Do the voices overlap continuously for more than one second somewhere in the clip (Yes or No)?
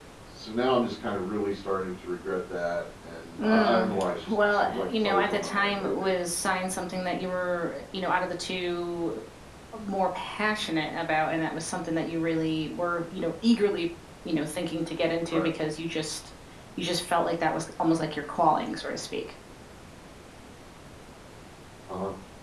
Yes